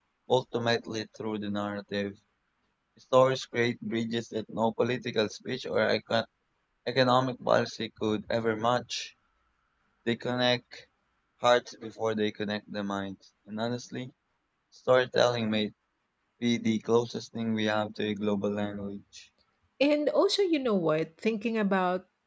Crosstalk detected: No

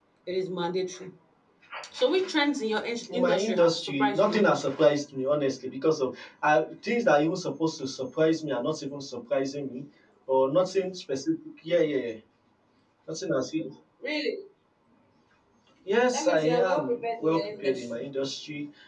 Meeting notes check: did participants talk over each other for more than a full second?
Yes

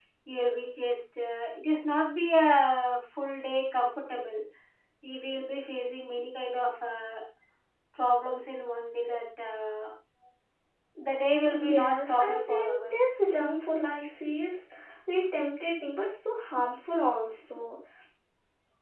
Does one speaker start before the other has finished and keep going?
Yes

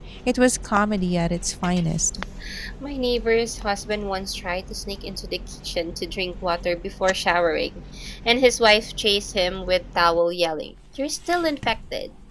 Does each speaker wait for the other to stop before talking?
Yes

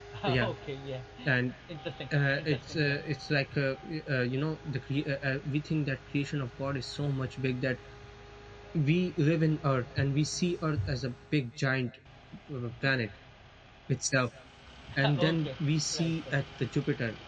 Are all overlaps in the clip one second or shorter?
No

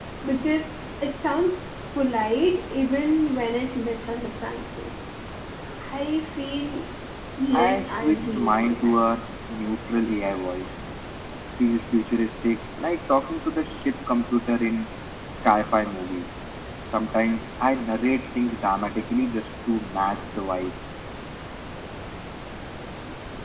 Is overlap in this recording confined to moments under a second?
No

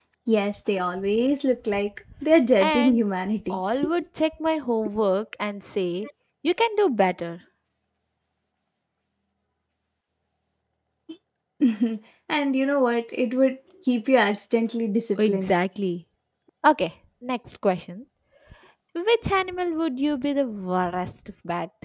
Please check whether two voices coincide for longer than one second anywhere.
No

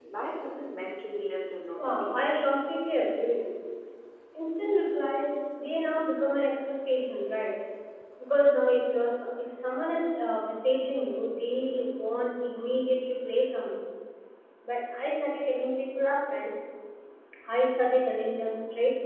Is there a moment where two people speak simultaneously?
Yes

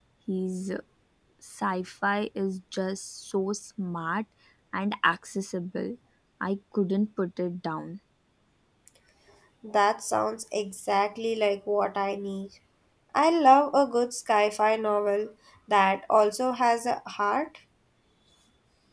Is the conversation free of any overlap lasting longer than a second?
Yes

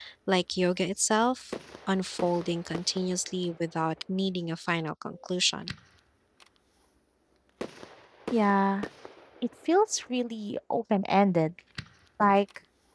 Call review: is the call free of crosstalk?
Yes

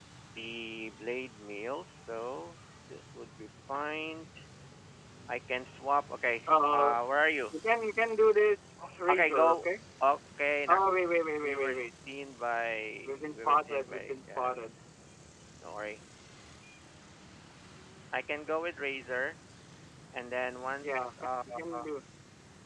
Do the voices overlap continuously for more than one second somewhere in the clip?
Yes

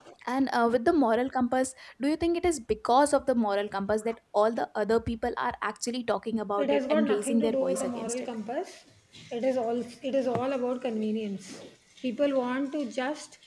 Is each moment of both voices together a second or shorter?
No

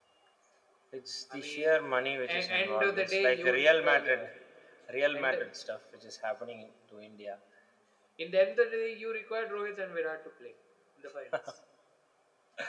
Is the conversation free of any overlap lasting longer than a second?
No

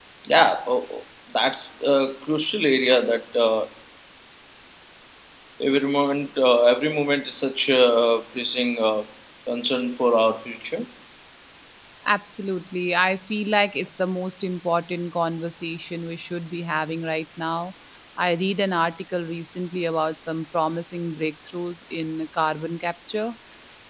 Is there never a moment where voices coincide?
Yes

